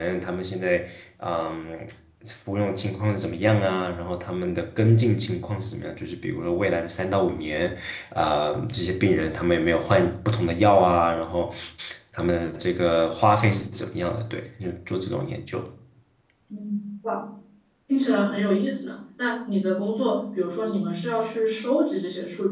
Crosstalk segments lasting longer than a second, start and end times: none

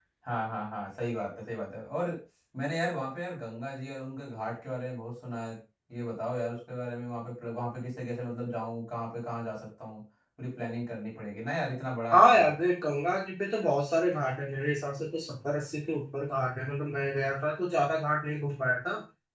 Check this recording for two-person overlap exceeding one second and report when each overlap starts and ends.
none

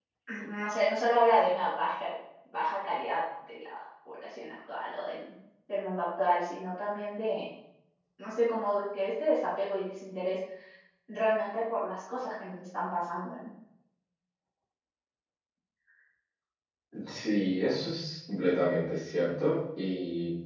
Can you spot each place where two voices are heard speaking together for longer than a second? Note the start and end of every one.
none

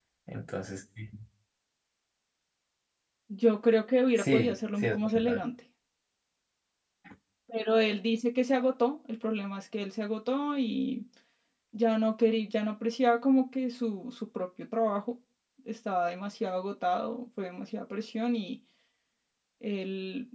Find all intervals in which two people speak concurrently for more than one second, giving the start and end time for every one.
4.2-5.4

